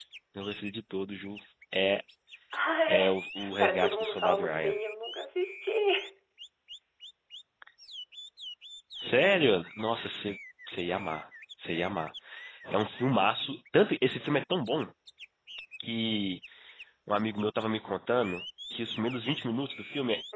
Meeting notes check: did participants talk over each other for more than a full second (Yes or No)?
Yes